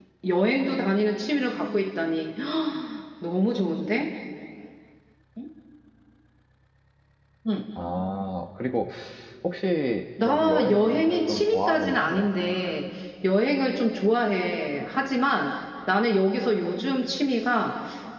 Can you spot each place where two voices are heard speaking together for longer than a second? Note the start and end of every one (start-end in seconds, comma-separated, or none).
10.2-12.3